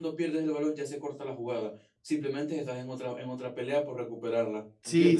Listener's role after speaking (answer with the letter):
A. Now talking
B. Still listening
A